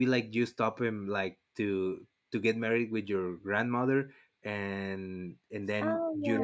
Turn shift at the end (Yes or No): No